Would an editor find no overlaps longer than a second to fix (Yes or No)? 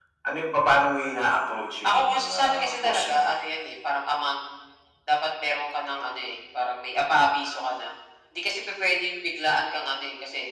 No